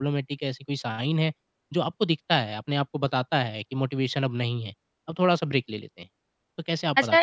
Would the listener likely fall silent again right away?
No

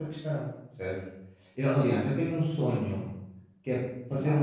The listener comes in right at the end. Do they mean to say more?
No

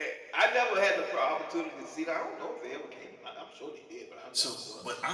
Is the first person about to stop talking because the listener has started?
Yes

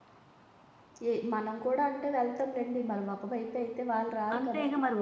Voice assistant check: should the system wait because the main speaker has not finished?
No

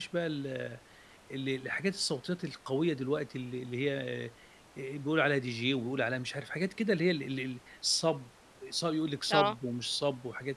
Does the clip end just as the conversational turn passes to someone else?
No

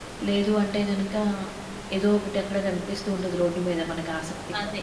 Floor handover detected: Yes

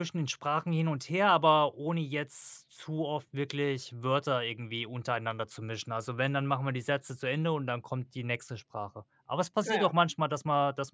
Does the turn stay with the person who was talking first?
Yes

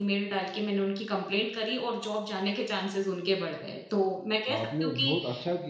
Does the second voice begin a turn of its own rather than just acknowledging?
Yes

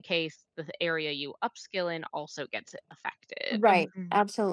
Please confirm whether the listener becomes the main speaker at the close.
Yes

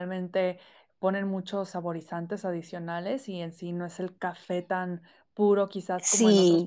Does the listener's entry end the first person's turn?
Yes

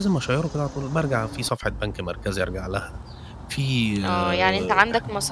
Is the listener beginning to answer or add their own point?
Yes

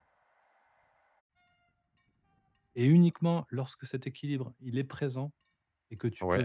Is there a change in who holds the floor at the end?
No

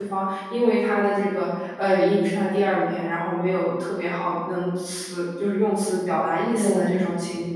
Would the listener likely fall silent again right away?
Yes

